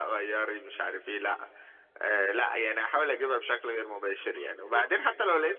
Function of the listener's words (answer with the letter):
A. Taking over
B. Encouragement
B